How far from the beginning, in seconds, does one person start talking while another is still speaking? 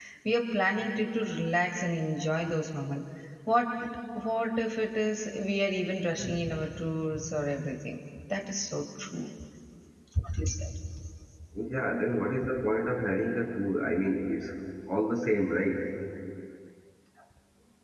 none

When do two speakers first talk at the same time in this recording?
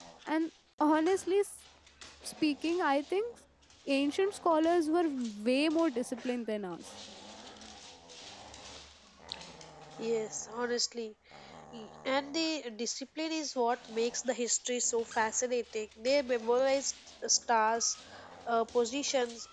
none

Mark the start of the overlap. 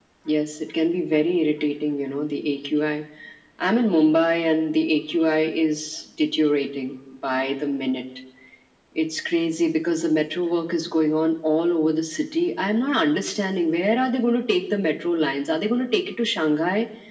none

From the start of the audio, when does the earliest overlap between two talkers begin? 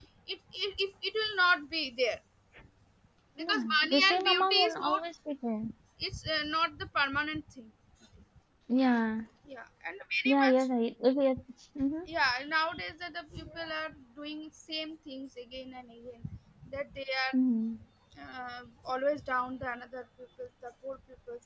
3.4 s

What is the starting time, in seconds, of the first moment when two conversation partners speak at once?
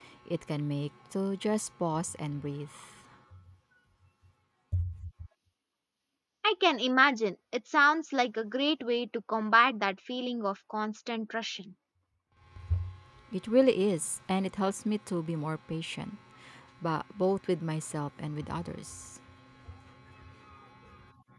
none

